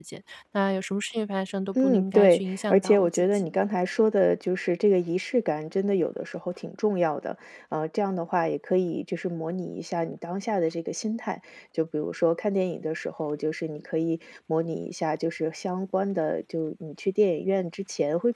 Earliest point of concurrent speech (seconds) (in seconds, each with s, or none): 1.8 s